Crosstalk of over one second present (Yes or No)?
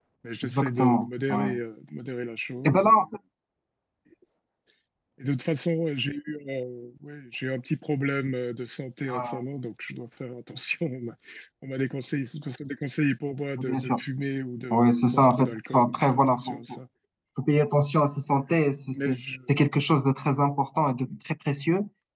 Yes